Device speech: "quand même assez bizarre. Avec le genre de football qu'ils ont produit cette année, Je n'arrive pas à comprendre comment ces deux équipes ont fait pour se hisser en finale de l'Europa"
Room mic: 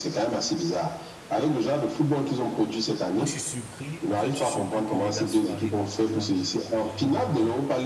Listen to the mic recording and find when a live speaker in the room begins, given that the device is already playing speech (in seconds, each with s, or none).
3.1 s